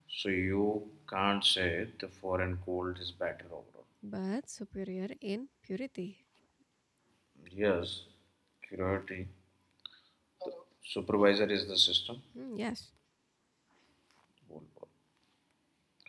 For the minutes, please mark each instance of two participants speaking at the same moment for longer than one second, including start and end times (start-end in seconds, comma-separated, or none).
none